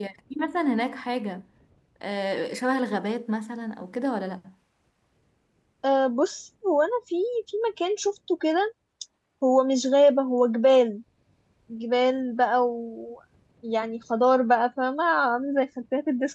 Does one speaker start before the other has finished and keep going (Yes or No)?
No